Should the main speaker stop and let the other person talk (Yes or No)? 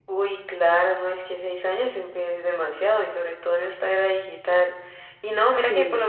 No